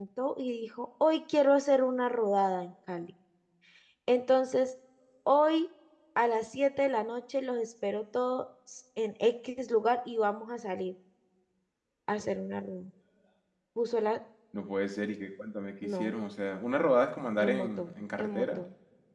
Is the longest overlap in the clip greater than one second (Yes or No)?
Yes